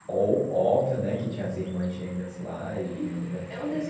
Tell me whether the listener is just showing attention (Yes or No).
No